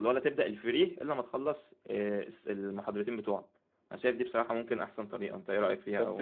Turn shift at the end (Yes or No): Yes